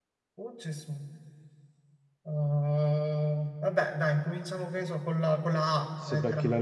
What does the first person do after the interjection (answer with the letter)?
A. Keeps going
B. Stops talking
B